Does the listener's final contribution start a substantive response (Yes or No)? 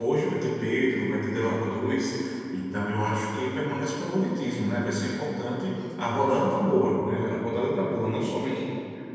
No